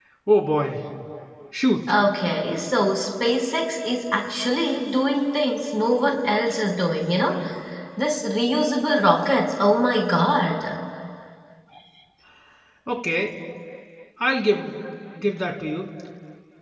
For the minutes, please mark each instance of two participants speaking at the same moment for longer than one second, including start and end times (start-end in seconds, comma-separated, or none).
none